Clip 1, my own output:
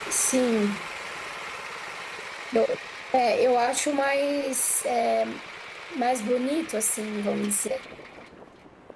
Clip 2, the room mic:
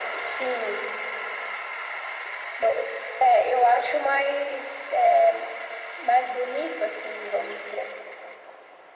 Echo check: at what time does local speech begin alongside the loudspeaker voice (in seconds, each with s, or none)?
none